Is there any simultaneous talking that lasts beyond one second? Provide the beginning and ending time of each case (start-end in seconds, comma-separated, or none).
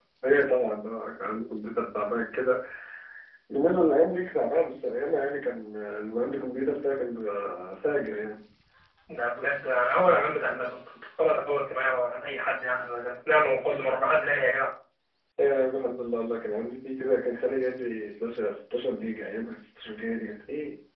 none